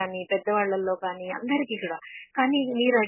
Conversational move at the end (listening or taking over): listening